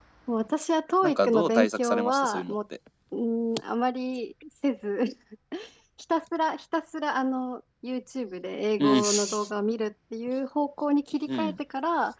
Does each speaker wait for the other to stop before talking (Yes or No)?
No